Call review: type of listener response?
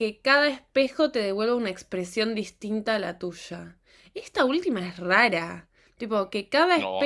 taking over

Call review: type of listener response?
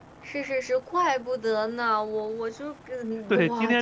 taking over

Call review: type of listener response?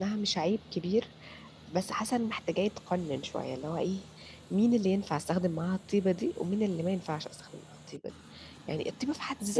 listening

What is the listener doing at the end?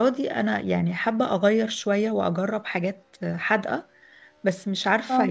listening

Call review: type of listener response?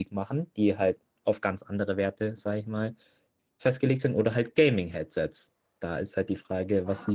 taking over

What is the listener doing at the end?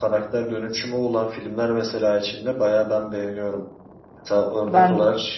listening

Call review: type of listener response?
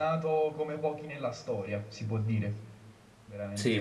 taking over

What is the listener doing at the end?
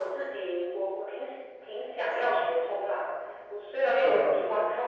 listening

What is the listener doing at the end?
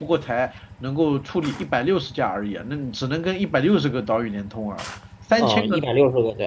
taking over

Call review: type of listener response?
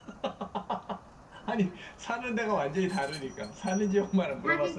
taking over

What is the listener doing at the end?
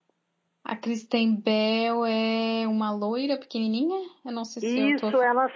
taking over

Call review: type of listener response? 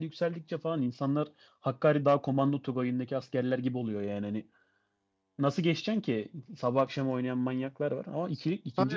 taking over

